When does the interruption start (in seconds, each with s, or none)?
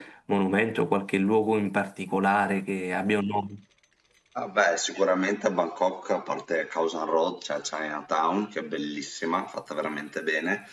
none